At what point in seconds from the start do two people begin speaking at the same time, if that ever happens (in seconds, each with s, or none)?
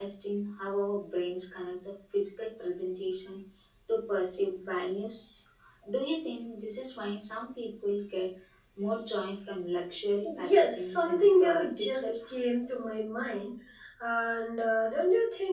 10.2 s